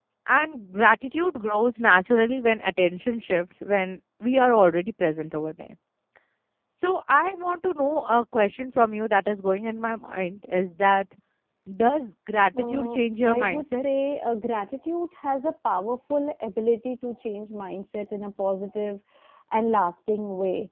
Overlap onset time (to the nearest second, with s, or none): 13 s